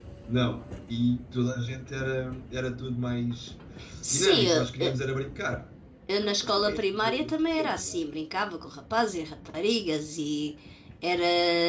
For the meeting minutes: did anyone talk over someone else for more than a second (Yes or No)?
Yes